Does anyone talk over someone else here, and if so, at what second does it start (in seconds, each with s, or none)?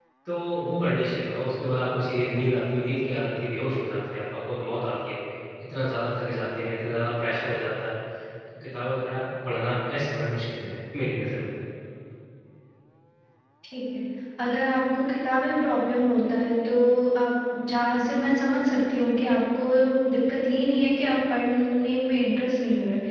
none